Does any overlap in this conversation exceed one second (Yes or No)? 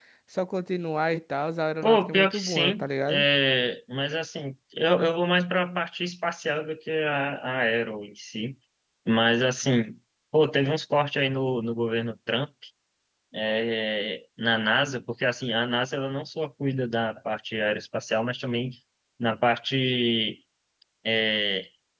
Yes